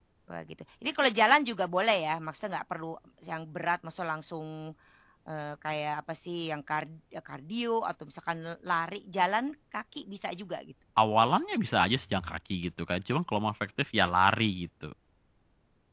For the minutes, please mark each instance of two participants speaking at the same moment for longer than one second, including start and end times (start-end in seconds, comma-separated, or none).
none